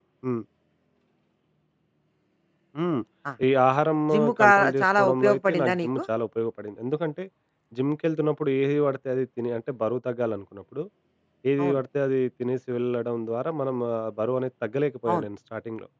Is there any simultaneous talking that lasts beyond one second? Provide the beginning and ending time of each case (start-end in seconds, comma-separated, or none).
4.4-6.0